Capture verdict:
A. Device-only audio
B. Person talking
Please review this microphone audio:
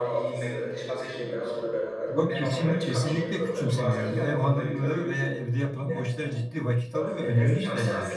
B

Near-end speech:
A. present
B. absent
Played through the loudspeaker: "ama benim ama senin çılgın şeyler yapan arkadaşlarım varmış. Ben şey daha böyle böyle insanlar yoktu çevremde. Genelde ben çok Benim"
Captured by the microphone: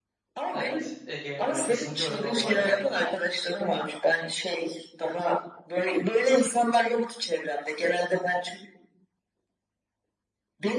A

